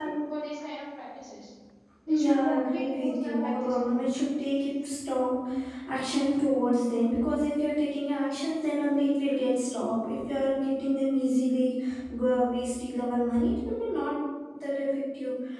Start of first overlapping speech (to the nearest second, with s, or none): 2 s